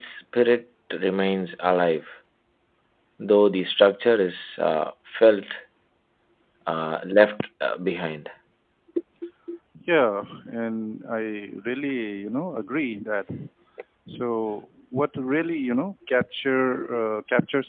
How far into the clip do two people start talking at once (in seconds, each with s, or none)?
none